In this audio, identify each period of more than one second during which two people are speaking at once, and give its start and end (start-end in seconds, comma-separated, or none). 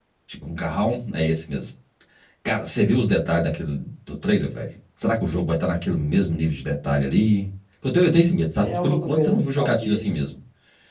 8.6-10.1